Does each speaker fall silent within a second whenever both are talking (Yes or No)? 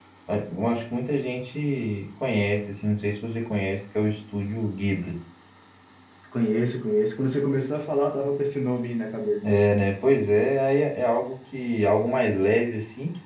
Yes